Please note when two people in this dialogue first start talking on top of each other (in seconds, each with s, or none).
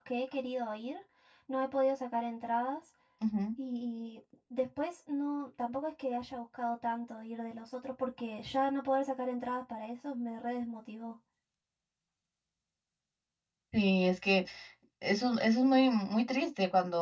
none